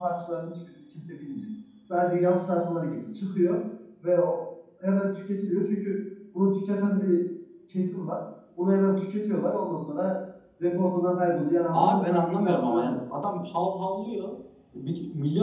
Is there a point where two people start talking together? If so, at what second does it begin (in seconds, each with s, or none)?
11.7 s